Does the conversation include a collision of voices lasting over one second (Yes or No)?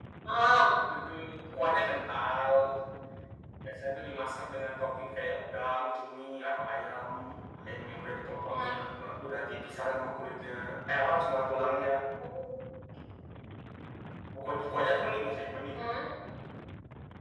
No